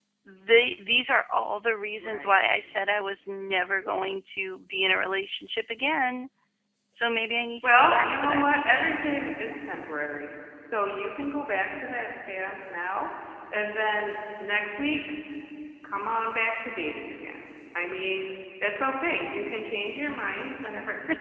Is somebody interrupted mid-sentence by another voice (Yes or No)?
Yes